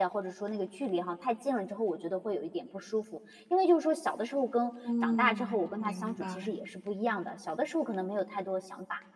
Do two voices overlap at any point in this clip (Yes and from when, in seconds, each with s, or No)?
Yes, from 4.8 s